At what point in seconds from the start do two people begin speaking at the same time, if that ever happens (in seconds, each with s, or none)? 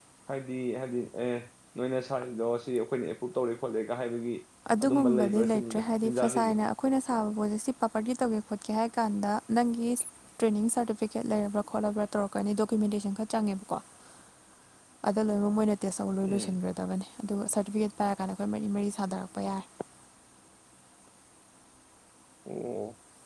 4.8 s